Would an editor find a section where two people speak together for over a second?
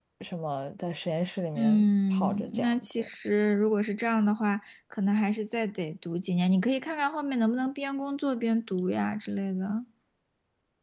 Yes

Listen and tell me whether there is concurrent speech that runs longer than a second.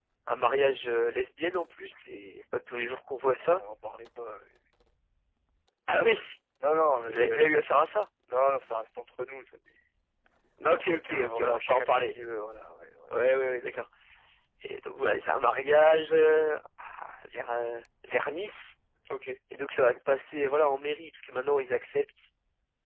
Yes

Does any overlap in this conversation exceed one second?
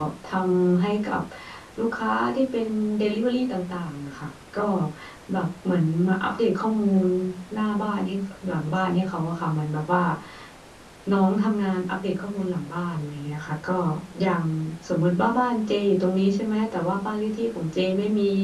No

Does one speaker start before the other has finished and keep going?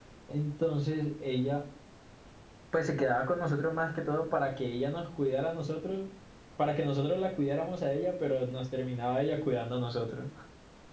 No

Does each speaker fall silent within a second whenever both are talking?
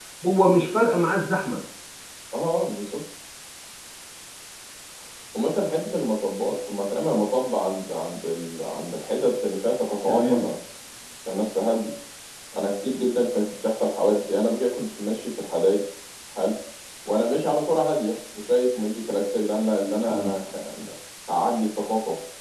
Yes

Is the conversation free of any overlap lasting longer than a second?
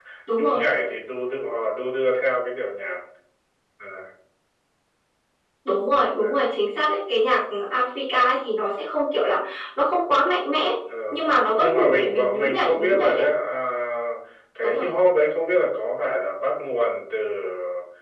No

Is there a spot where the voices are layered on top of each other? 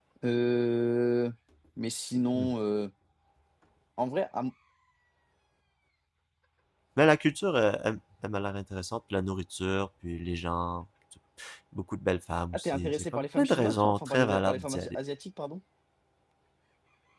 Yes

